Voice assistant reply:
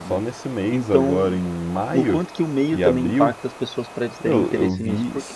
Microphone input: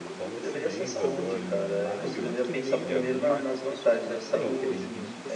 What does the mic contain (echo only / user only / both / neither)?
both